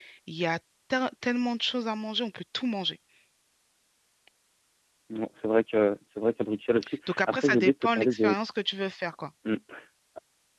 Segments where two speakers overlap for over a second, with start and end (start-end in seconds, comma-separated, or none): 7.1-8.4